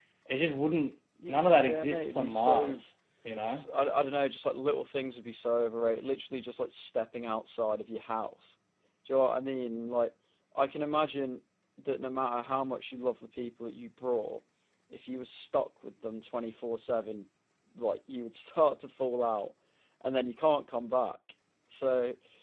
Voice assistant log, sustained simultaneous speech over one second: present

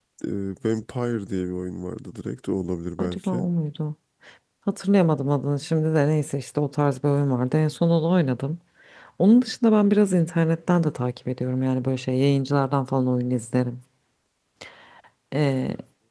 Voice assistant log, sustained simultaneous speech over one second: none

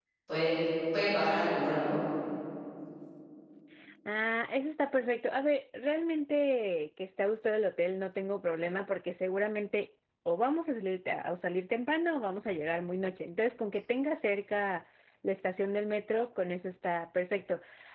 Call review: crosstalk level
none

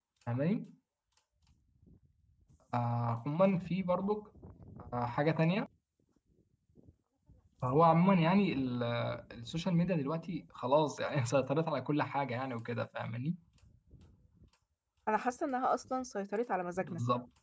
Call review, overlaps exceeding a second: none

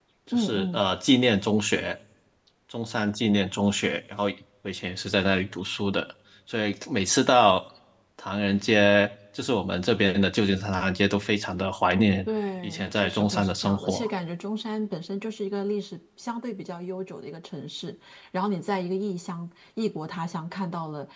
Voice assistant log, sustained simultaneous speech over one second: present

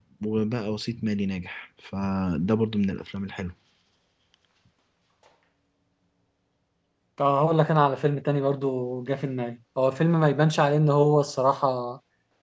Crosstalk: none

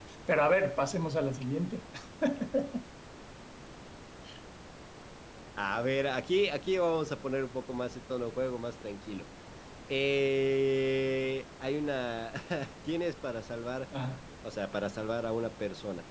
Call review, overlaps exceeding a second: none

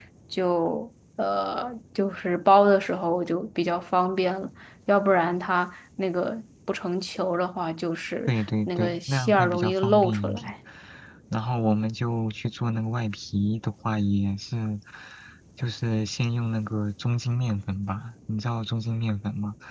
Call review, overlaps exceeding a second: present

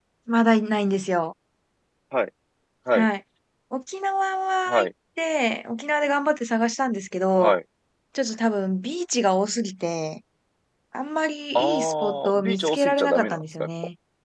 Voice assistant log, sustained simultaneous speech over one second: present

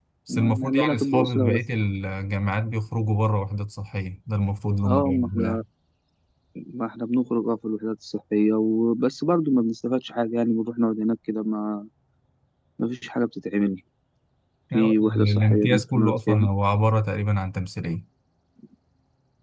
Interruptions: present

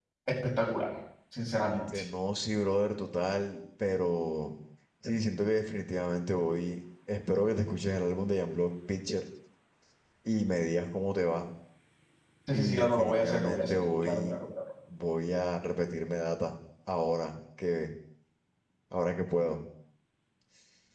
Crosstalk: present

